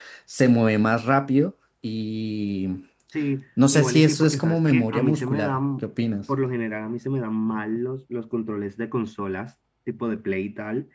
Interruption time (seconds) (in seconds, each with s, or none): 3.7 s